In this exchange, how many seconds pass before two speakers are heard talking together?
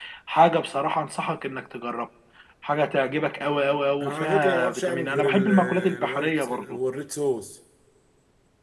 4.0 s

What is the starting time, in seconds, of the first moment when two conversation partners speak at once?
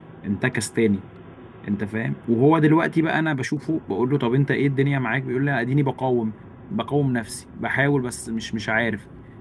none

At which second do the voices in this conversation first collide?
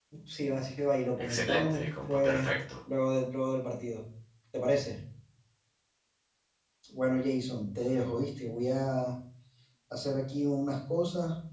1.2 s

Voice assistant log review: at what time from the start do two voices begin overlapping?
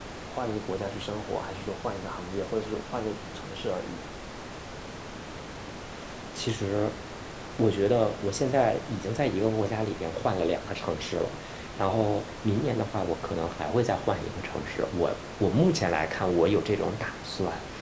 none

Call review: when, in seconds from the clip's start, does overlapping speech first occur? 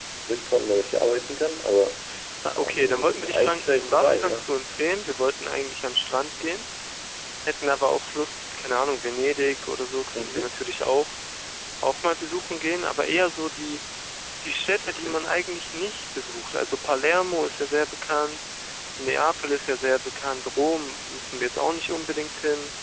2.6 s

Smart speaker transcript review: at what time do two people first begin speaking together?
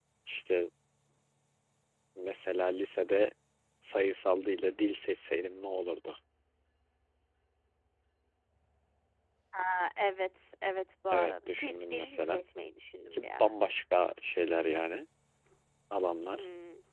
11.1 s

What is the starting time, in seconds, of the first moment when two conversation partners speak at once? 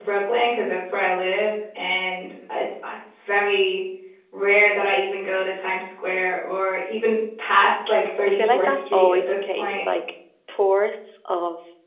8.2 s

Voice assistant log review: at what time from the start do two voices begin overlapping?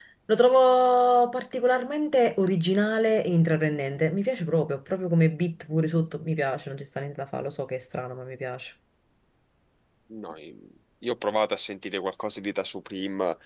none

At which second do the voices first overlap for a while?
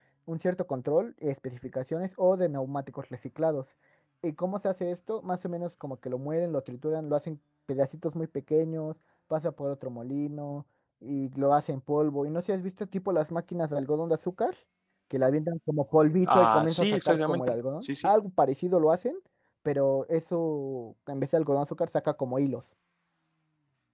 16.3 s

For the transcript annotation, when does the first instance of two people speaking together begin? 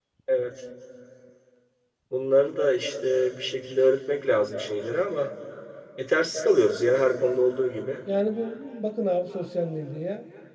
none

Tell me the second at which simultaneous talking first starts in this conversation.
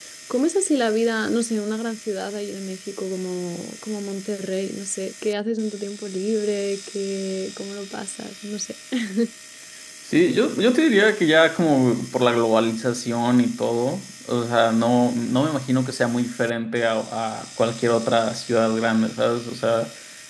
none

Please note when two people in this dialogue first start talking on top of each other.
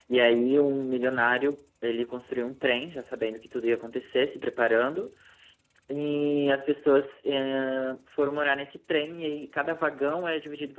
none

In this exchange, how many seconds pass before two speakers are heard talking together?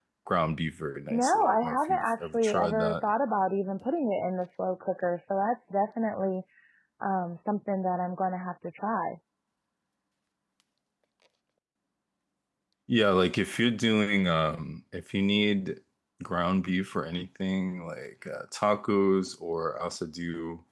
1.1 s

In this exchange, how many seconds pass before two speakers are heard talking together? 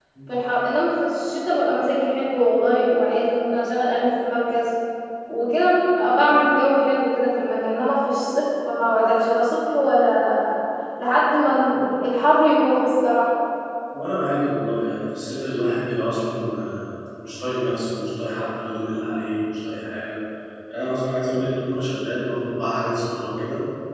none

